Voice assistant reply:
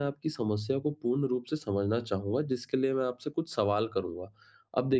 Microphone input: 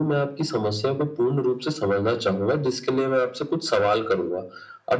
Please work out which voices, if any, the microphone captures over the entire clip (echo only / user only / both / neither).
echo only